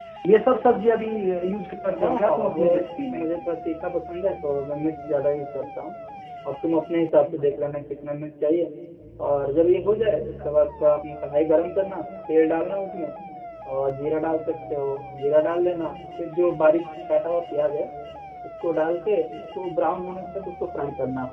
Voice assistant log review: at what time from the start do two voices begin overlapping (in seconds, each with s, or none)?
2.0 s